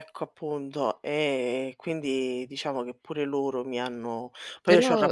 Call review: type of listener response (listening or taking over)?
taking over